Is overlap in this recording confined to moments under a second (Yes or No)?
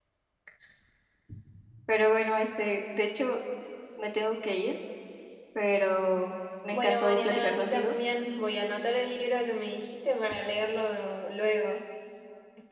No